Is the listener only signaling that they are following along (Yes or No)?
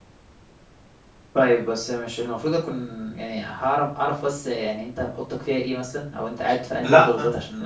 Yes